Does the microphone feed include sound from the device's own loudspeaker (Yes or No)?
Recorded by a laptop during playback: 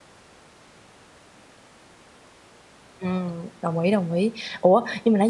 No